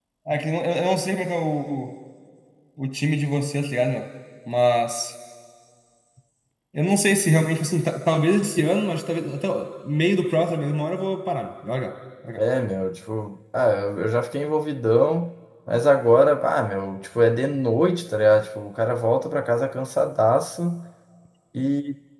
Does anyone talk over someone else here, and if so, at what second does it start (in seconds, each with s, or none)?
none